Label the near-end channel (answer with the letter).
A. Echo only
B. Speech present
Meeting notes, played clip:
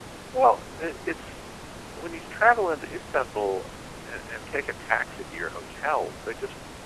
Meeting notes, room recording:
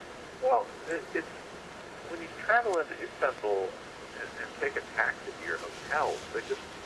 A